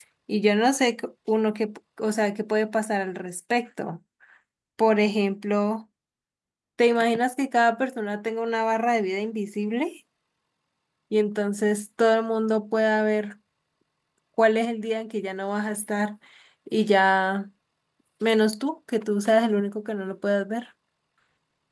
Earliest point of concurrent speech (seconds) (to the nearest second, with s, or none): none